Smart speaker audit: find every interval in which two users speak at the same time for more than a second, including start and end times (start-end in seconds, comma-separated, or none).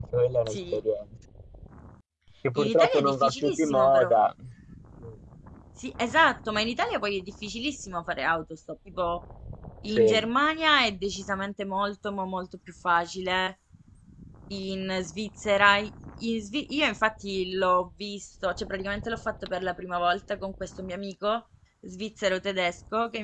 2.6-4.1